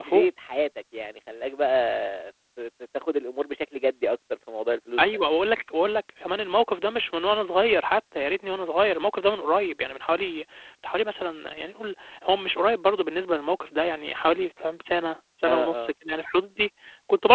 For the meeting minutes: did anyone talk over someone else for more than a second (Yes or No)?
No